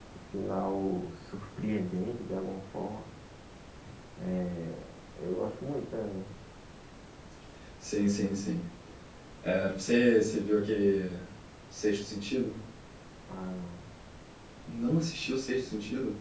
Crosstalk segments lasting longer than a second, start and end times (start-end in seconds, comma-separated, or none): none